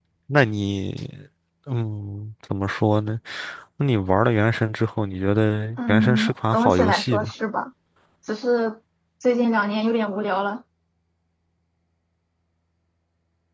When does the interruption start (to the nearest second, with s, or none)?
6 s